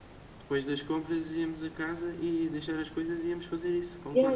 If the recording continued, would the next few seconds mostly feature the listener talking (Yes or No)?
Yes